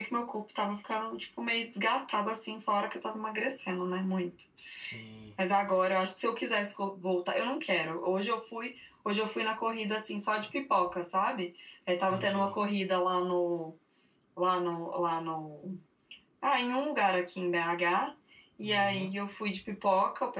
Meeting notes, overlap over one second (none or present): none